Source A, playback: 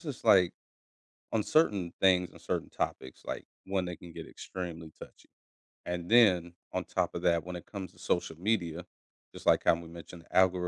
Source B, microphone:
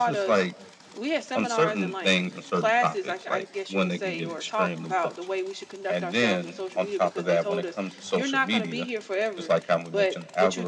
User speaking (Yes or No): Yes